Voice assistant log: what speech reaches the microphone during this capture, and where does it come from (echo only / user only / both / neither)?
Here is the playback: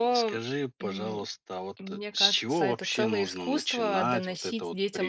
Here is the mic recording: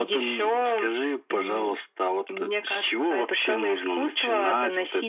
echo only